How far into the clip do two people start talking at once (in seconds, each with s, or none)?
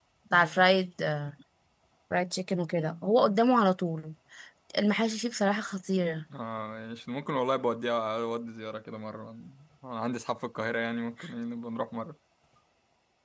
none